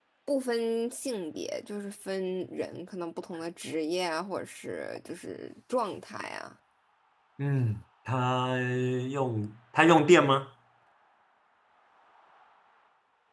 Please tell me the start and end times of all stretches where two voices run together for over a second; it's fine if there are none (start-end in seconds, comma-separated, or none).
none